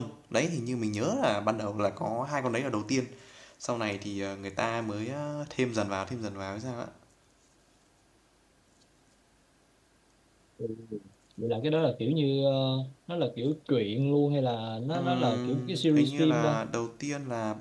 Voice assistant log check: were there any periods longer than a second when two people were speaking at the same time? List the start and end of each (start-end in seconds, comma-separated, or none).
14.9-16.6